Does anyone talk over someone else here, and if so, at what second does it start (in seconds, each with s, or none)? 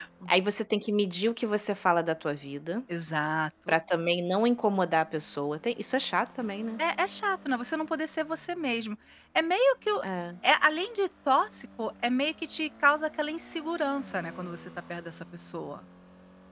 none